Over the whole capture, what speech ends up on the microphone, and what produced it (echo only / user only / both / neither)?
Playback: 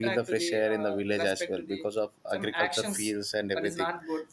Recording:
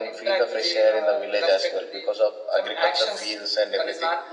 echo only